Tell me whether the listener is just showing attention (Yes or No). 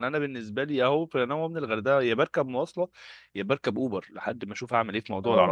Yes